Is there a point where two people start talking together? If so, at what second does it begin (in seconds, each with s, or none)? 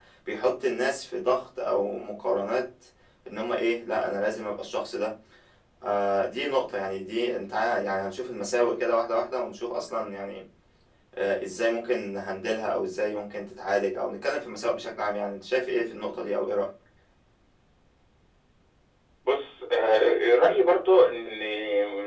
none